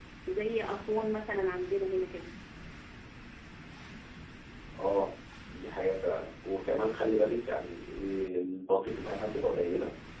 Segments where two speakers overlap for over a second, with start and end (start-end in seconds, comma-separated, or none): none